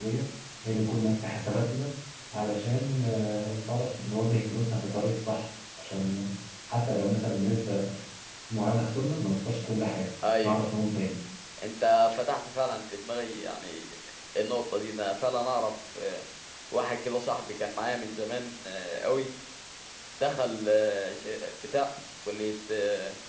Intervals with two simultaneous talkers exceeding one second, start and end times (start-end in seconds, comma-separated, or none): none